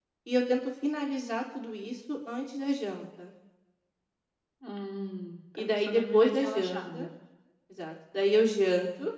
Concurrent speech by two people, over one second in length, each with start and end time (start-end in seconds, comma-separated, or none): 5.6-7.1